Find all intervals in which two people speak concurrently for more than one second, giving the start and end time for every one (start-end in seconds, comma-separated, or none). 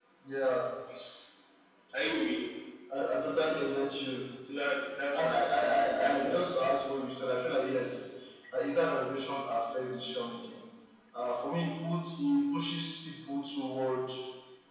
5.1-6.4